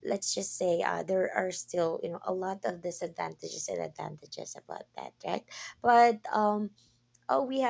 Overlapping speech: No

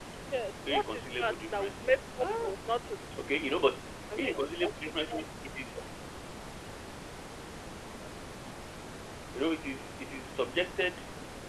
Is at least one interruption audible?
Yes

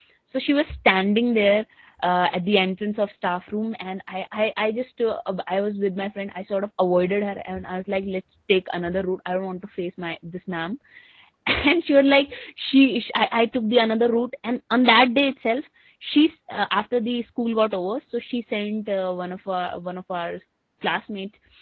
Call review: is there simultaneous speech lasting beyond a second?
No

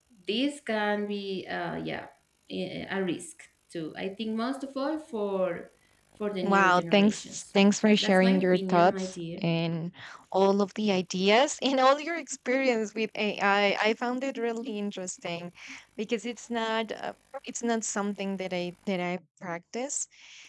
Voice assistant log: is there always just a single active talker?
No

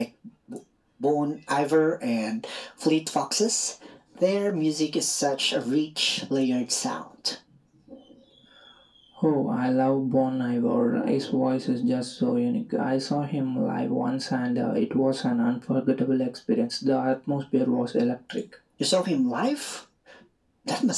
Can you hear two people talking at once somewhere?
No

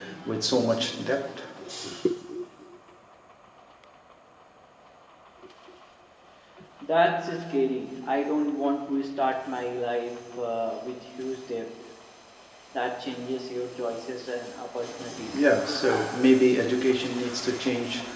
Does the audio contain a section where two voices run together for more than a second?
No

